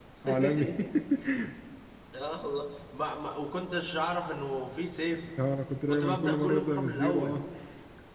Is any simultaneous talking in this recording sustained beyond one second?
Yes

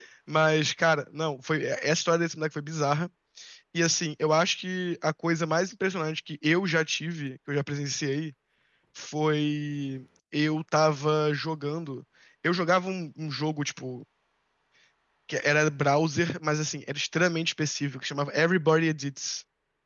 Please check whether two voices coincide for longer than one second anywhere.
No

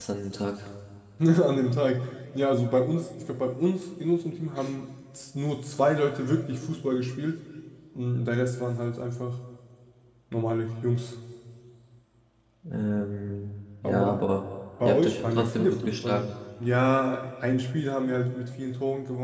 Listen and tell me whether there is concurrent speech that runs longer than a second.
Yes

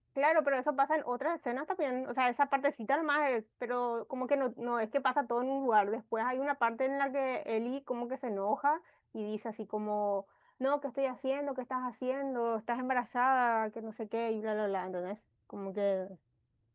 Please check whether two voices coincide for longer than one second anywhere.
No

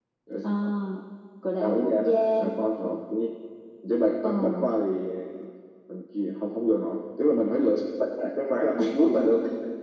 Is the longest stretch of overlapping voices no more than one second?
No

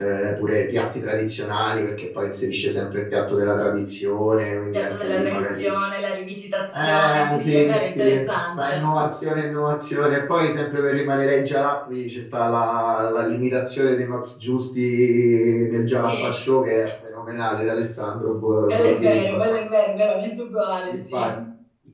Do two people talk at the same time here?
Yes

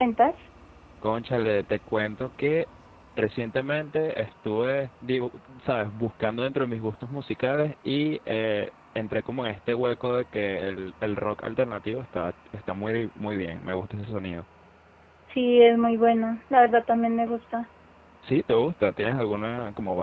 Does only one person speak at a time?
Yes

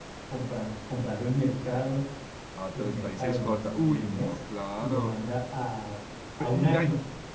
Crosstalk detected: Yes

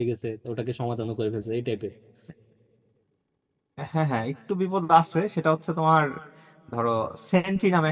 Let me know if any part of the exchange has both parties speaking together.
No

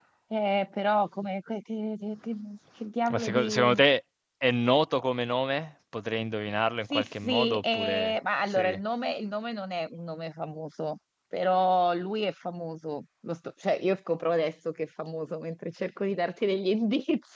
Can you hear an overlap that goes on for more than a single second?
Yes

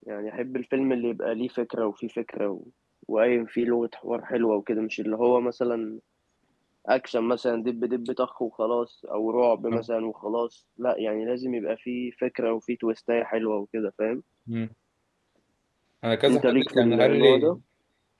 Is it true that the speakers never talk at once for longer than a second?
No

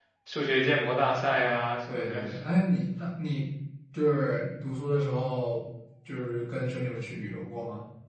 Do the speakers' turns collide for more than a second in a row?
No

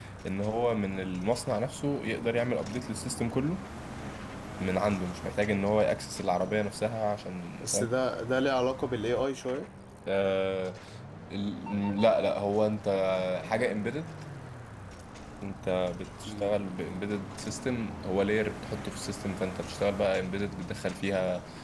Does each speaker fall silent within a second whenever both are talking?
Yes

